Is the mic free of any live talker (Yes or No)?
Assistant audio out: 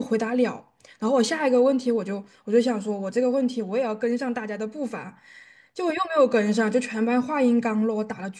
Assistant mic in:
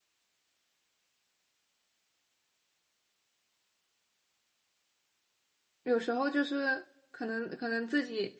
No